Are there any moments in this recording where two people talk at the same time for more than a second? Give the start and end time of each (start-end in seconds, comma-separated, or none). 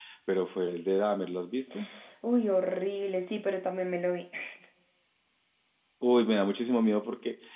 none